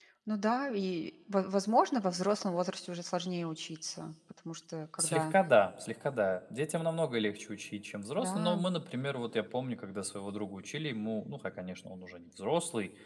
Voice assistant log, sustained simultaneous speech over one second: none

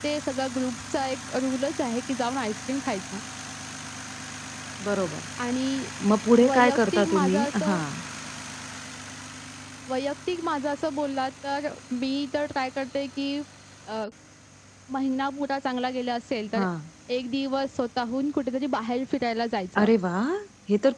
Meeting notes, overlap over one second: present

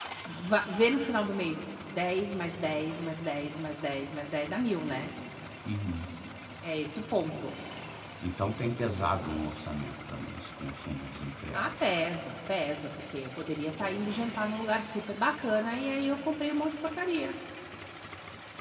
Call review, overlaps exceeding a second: none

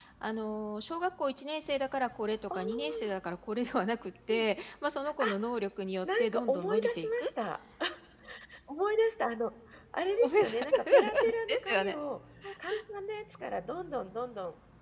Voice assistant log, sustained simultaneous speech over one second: present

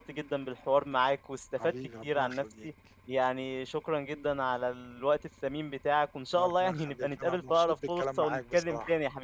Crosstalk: present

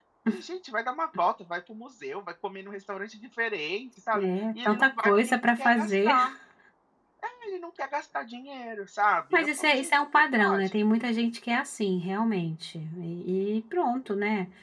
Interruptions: present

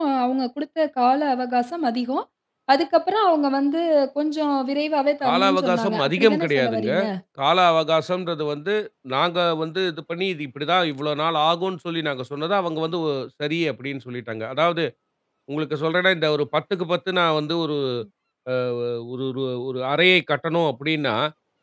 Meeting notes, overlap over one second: present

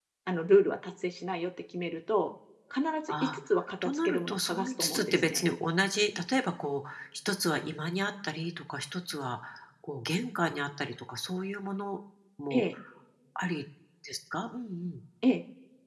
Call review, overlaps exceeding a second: present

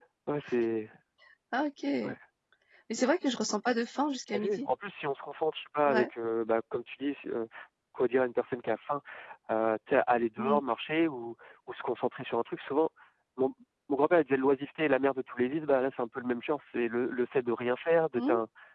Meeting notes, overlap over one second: none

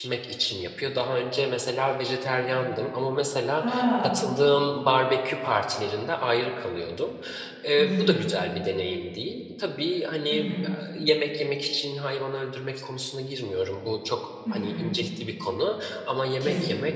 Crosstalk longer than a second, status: none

